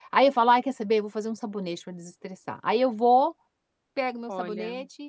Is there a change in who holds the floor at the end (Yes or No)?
No